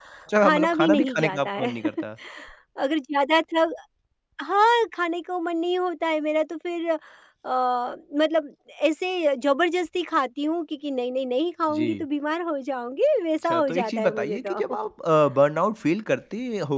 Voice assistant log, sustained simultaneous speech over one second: present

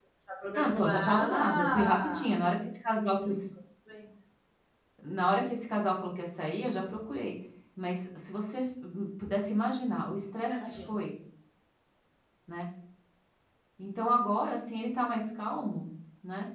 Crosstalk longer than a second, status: present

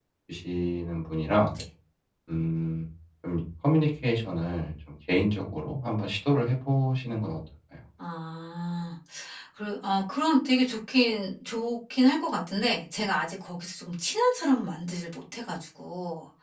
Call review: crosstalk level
none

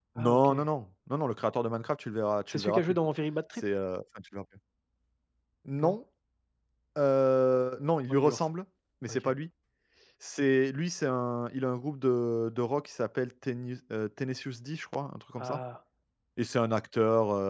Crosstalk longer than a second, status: none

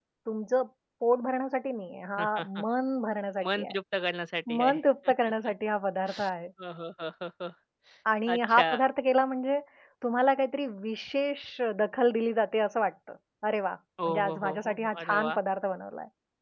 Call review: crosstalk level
present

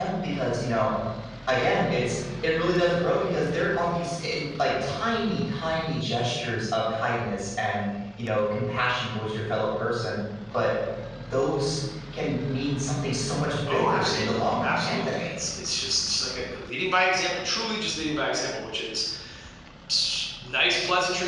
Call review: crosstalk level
present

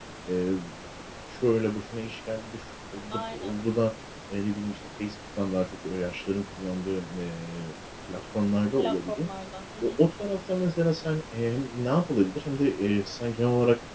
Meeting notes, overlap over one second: none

